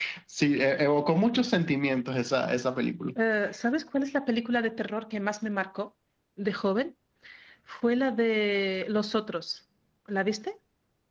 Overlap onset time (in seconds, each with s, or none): none